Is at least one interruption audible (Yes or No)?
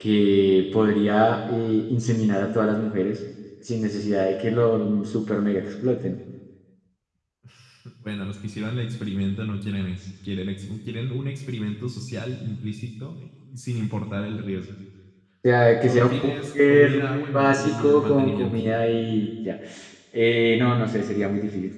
Yes